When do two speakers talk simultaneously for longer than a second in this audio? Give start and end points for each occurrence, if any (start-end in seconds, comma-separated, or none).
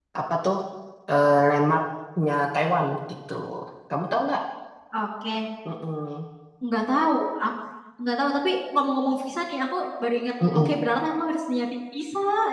none